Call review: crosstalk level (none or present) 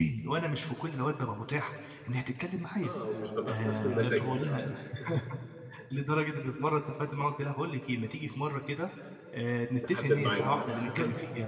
present